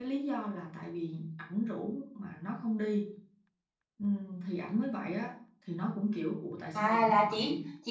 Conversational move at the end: taking over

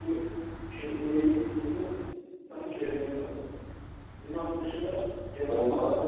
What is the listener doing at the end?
taking over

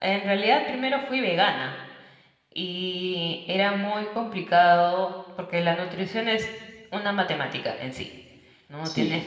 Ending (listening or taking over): listening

